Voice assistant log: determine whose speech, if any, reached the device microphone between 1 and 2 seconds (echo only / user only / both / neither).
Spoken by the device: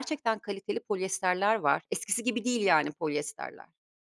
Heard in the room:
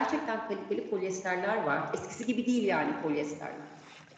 echo only